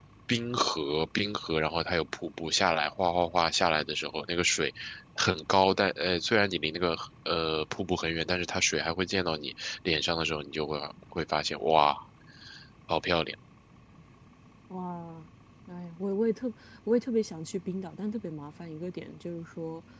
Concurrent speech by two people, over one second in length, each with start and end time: none

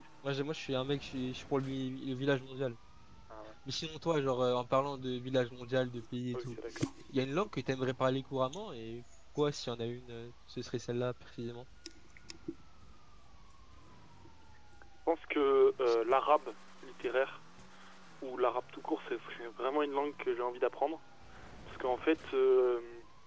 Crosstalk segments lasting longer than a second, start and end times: none

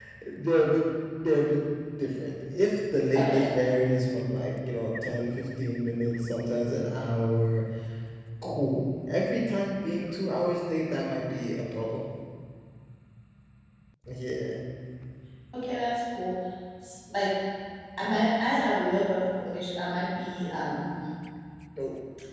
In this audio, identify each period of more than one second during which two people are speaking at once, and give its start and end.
none

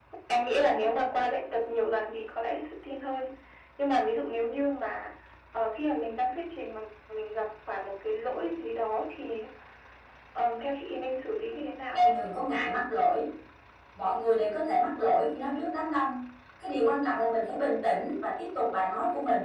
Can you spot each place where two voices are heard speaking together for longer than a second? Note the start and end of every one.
none

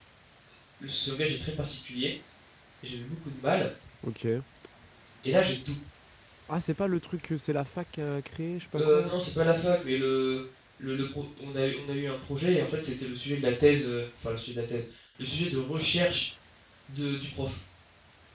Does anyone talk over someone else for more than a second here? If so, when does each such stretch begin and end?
none

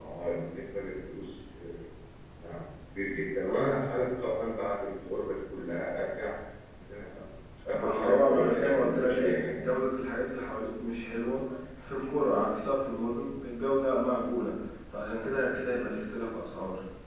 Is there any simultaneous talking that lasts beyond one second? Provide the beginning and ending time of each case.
7.7-9.7

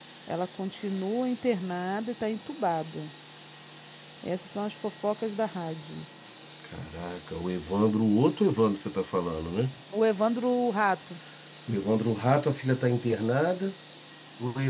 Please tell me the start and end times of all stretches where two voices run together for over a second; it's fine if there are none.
none

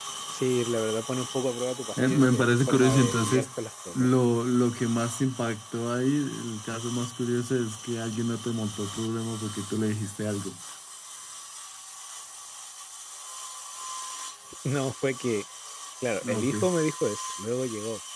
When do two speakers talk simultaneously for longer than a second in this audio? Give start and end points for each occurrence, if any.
2.1-3.5

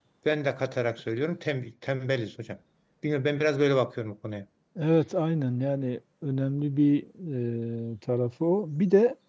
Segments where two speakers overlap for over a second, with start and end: none

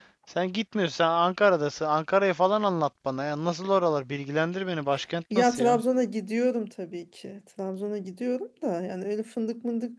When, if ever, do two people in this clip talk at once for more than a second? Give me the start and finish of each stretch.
none

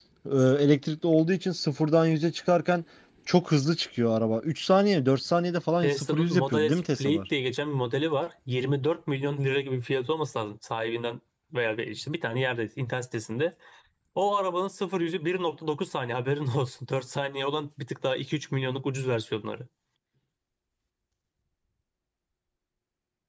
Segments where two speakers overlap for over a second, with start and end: 5.8-7.2

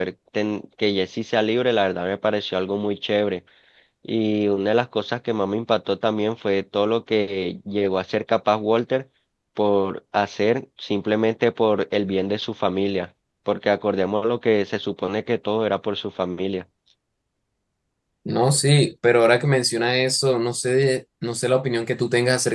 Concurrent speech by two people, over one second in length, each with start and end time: none

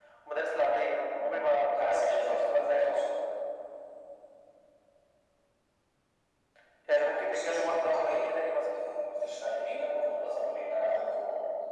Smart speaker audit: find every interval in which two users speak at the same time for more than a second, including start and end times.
0.9-2.9, 7.0-8.3

